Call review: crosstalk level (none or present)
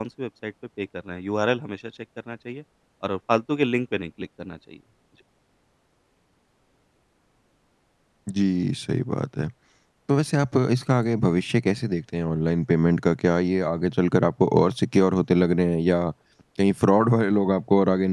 none